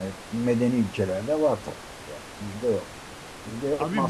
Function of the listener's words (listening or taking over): taking over